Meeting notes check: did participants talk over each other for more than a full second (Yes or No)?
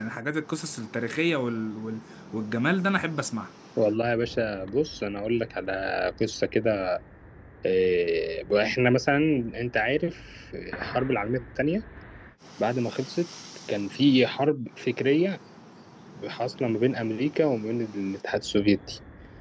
No